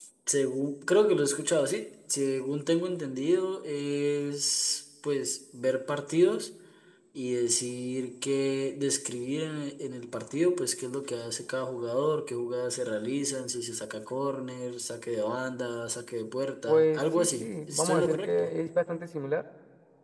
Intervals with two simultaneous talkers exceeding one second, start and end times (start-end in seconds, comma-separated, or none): 16.7-18.5